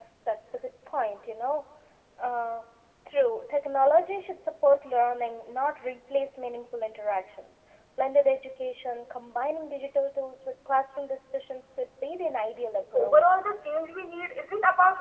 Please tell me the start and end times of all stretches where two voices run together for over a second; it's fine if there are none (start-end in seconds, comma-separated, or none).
none